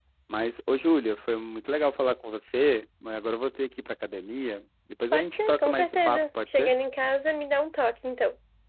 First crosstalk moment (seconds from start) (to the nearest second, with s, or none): 5 s